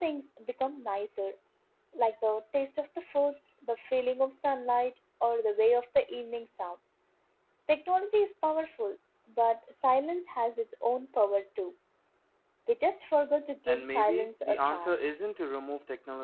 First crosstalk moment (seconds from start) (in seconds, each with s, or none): 13.7 s